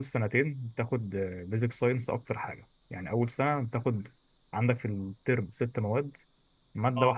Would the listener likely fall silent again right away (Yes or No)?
Yes